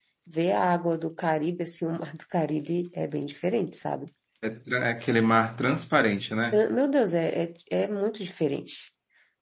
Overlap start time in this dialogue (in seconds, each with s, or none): none